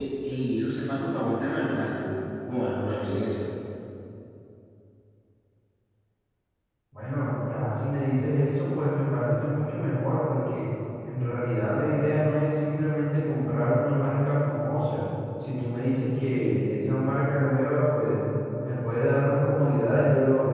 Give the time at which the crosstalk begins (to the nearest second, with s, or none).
none